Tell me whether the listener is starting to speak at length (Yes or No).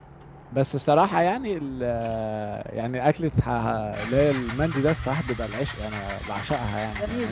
Yes